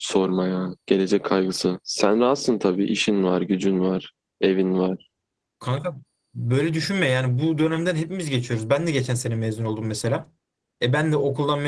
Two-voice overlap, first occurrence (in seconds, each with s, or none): none